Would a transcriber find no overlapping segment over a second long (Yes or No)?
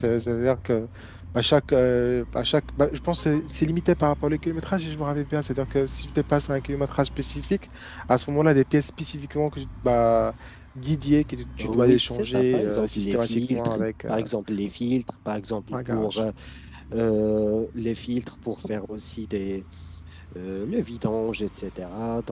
No